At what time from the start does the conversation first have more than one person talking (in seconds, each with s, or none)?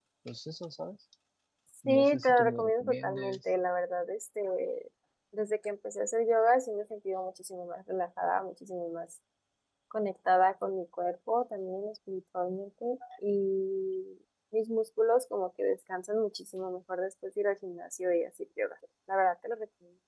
1.9 s